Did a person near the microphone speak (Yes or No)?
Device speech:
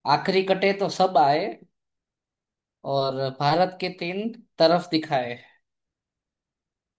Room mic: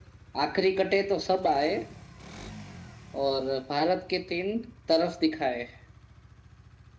No